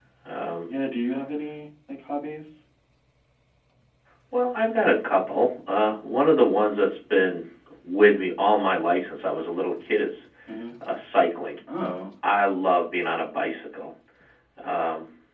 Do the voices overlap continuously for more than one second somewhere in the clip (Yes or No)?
No